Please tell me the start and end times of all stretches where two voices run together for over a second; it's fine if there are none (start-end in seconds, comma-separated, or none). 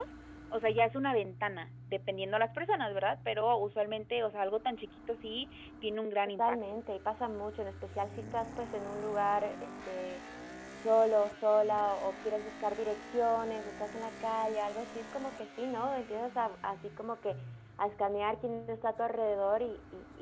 none